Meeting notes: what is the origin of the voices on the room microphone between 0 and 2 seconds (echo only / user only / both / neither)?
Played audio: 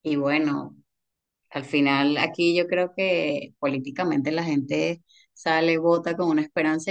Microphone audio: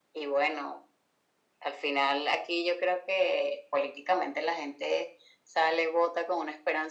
echo only